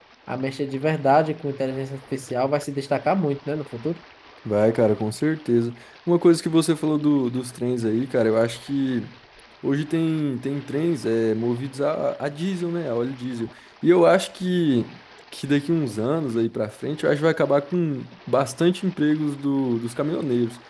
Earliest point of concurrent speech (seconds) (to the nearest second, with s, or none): none